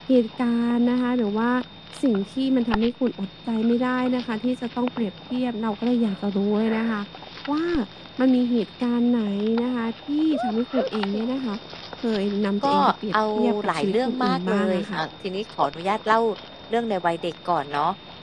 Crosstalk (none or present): present